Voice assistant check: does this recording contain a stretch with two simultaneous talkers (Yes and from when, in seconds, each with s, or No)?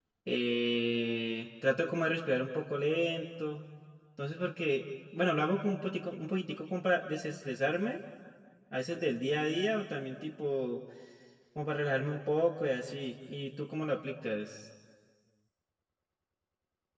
No